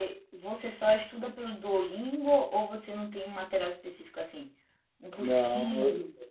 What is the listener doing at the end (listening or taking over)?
taking over